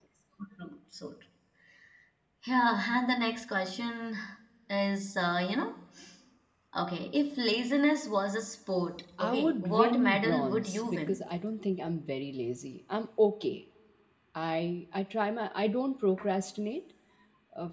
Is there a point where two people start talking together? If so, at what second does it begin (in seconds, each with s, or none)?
9.2 s